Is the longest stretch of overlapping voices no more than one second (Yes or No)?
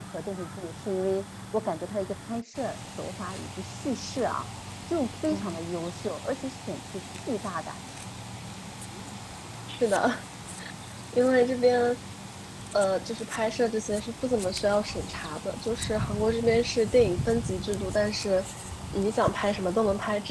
Yes